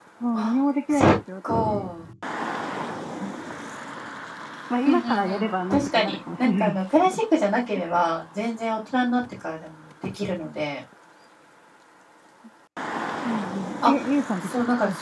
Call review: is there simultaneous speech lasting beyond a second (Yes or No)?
Yes